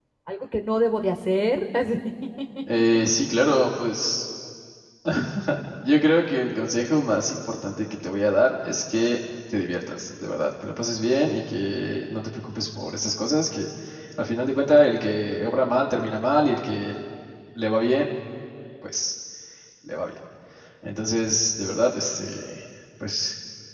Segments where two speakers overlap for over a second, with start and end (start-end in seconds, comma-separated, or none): none